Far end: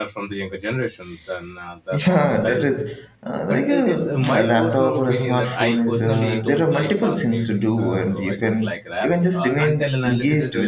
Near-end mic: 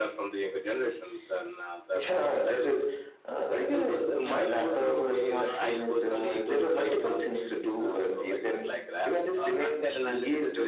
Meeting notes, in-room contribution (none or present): none